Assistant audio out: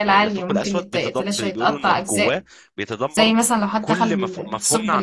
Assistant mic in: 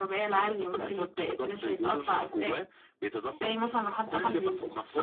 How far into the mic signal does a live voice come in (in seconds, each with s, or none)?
none